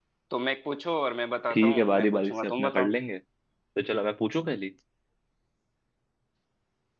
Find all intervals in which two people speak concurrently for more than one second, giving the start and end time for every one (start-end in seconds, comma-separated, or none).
1.5-2.9